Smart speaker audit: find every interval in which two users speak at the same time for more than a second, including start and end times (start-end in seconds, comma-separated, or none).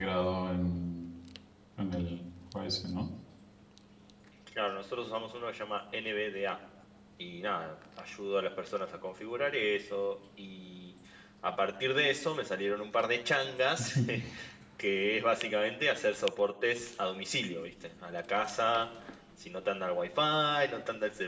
none